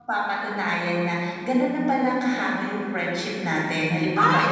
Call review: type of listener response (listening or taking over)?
listening